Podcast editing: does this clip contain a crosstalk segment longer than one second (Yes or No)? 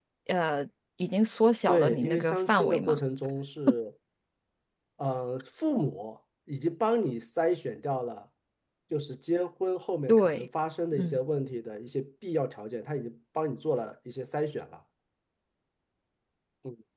Yes